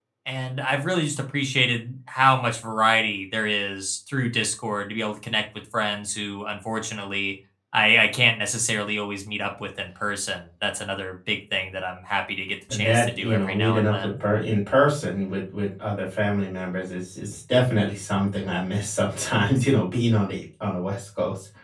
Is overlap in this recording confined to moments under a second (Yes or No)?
No